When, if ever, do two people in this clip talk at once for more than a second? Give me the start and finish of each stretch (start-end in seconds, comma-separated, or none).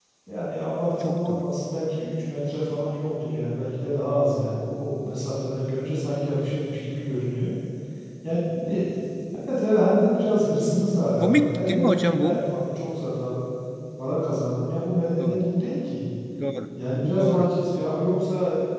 11.2-12.5